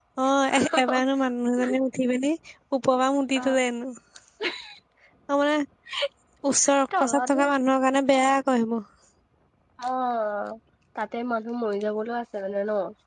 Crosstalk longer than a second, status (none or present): none